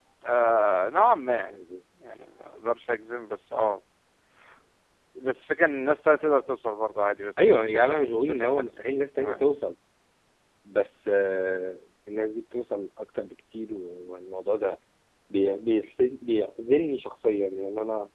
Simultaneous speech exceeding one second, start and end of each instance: 7.4-8.7

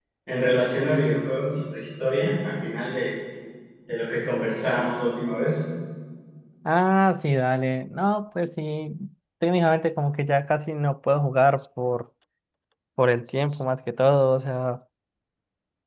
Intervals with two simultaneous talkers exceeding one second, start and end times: none

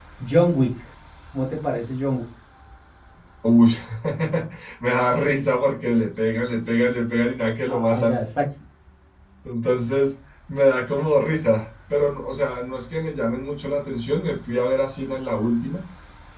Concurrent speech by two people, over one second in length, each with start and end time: none

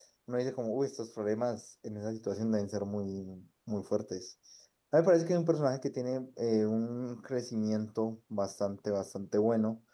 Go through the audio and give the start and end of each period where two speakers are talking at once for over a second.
none

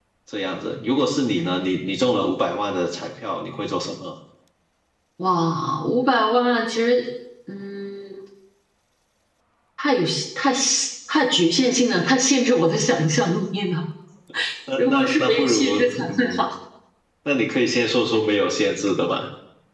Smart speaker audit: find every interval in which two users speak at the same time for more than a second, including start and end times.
14.8-16.4

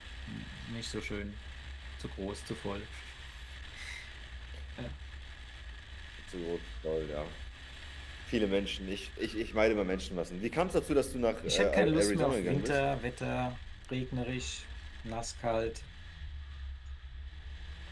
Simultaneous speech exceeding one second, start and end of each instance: 11.5-12.8

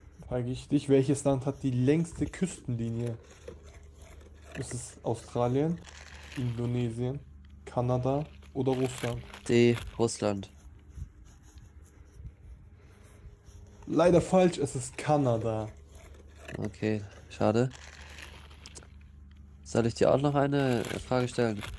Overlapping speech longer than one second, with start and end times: none

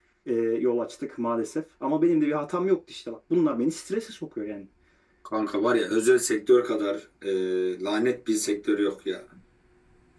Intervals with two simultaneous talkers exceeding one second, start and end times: none

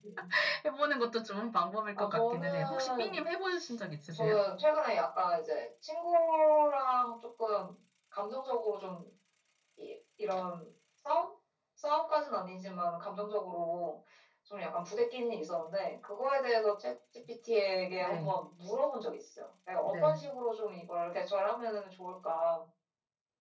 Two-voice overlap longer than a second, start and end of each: 2.0-3.2

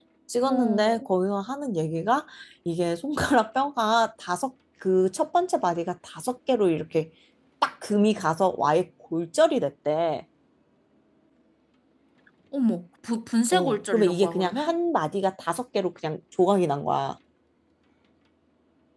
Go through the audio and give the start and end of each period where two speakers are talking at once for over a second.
13.5-14.8

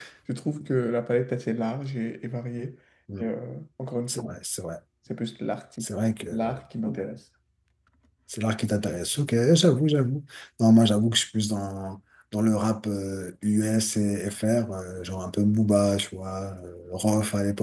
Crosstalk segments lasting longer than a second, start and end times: none

